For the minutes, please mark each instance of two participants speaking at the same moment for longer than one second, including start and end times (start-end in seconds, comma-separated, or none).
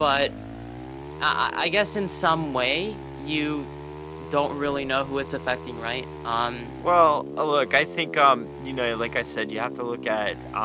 none